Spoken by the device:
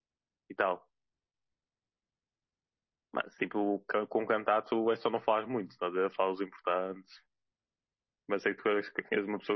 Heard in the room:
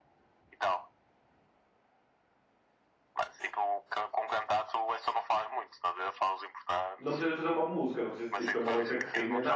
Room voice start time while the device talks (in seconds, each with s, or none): 7.0 s